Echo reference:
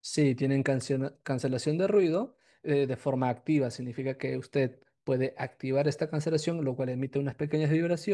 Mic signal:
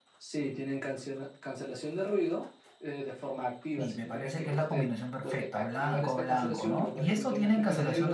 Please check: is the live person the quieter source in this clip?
No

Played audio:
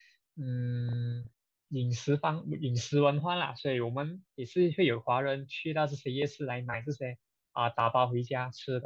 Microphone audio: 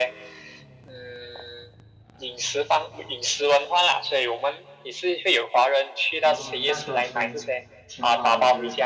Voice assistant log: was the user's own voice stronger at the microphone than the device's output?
No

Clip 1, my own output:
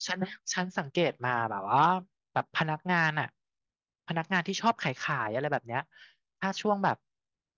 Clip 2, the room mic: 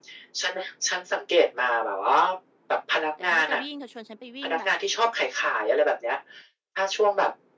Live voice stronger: No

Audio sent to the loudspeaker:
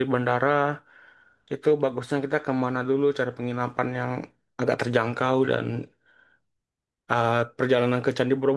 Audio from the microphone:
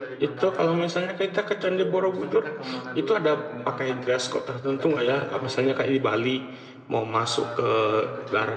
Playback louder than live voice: No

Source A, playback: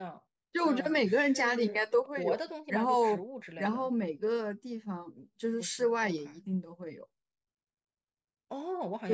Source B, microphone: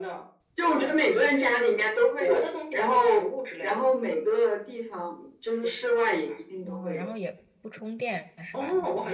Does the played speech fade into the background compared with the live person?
No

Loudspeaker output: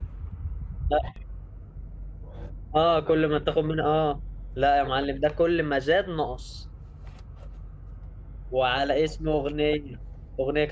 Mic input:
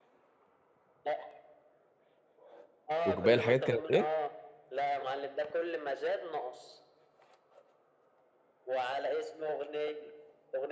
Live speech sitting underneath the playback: No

